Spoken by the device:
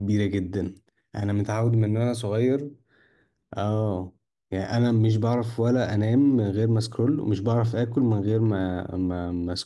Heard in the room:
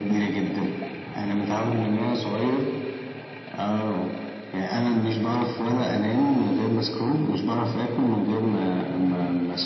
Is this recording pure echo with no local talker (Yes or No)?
Yes